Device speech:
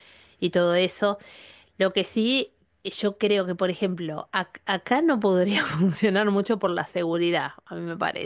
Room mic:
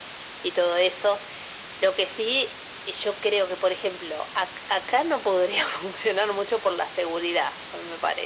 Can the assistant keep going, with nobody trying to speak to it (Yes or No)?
Yes